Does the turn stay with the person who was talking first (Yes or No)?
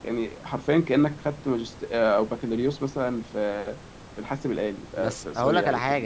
No